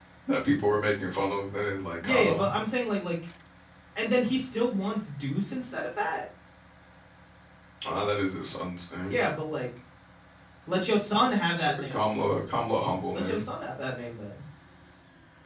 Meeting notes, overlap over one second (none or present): none